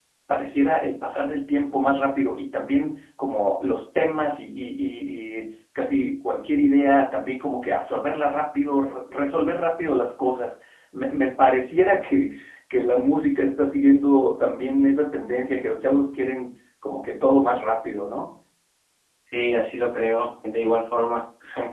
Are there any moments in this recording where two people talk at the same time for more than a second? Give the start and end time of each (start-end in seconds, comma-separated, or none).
none